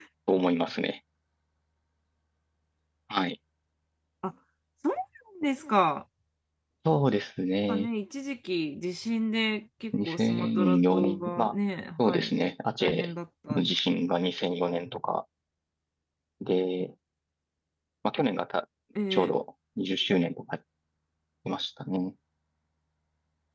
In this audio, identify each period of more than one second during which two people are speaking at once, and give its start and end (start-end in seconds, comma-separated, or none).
10.0-11.5